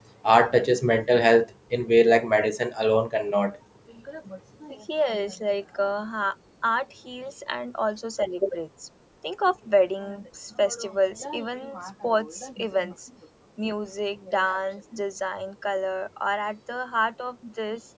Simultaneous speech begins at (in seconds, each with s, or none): none